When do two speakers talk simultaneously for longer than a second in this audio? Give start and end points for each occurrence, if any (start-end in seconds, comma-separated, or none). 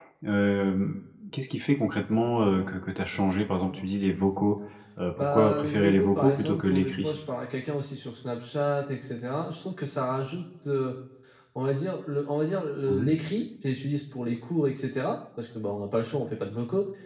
5.2-7.1